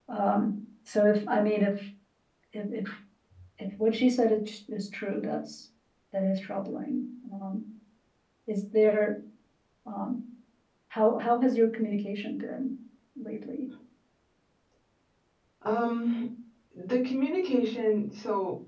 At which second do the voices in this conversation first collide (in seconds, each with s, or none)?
none